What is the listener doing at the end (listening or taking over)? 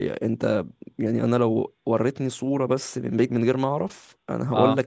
listening